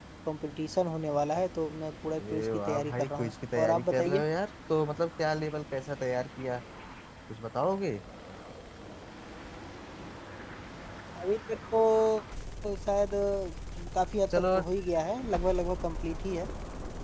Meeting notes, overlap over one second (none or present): present